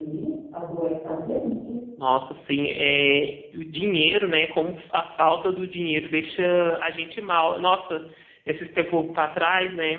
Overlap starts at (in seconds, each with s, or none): none